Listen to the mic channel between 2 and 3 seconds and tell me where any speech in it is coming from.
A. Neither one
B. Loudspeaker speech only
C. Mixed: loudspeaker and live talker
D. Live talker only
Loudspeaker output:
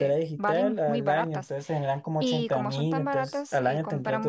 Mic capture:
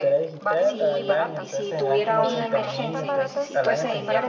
C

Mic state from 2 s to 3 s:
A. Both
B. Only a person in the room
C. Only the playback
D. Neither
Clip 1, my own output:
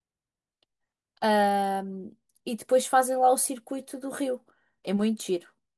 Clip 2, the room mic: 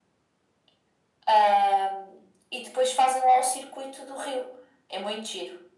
C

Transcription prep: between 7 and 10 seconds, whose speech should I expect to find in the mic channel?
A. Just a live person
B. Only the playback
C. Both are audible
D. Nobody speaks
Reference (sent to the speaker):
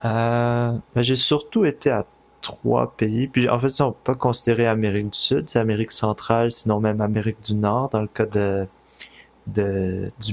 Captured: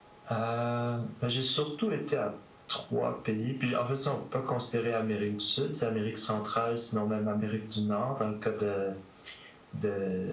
B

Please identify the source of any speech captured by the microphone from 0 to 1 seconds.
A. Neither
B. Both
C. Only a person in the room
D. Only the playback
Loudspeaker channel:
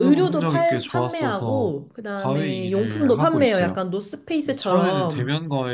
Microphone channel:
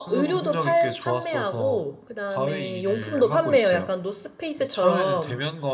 D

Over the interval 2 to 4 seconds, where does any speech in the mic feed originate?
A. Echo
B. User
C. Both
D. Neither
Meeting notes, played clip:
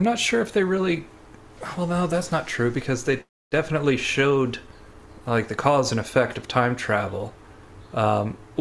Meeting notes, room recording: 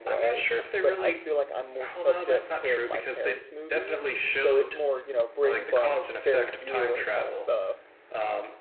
C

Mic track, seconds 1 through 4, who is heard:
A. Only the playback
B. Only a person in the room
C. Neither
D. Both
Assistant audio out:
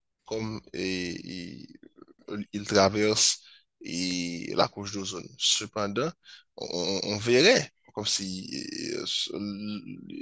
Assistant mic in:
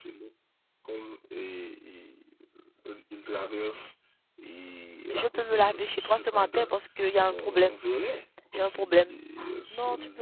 A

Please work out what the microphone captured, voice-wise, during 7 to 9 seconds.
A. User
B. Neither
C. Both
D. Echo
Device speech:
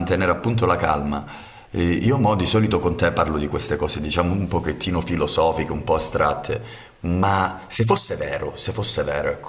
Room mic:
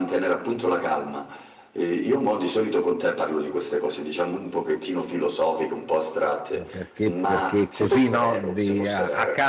C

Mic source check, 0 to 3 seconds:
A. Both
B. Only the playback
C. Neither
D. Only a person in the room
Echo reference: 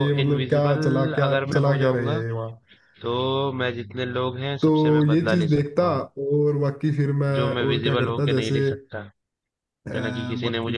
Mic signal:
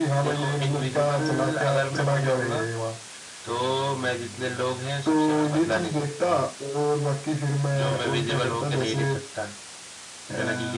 B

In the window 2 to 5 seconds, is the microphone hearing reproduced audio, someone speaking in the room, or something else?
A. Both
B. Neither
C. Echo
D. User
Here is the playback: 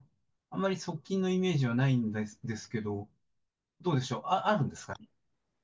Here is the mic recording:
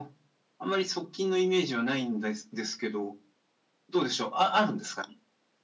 C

